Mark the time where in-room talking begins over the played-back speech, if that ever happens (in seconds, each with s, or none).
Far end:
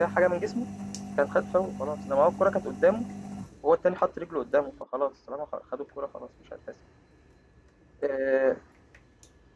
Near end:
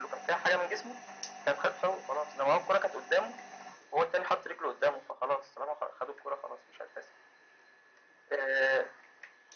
none